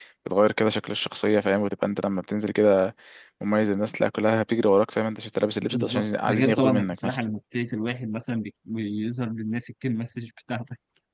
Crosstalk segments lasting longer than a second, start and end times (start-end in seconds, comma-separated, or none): 5.7-7.2